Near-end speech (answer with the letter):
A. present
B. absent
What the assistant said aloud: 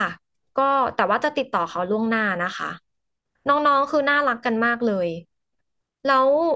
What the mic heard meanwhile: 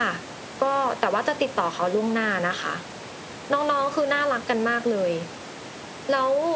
B